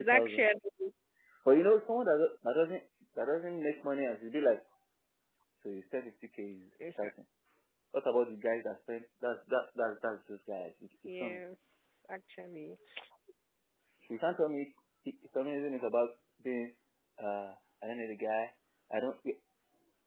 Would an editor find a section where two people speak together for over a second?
No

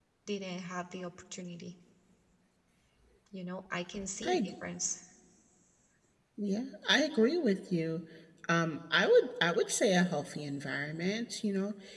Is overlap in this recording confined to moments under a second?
Yes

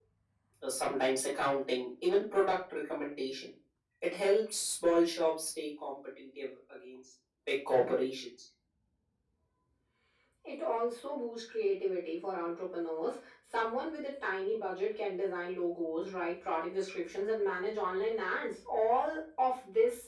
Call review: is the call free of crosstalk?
Yes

